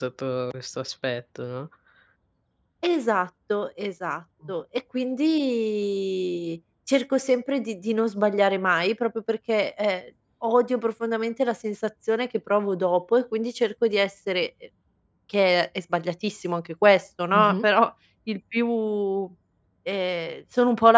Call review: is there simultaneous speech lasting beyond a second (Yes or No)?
No